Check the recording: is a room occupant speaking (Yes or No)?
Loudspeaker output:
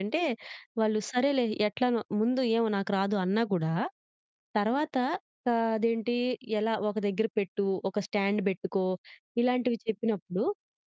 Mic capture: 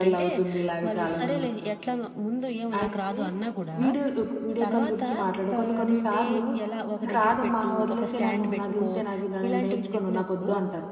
Yes